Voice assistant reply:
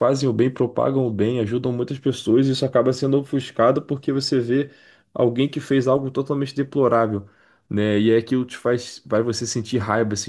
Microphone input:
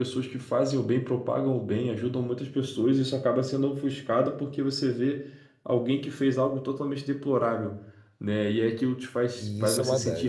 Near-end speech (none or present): present